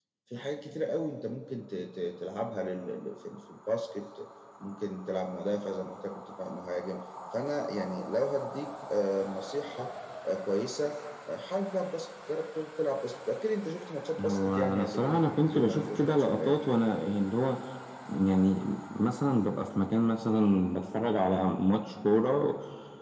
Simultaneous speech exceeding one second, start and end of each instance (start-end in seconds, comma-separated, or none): 14.2-16.6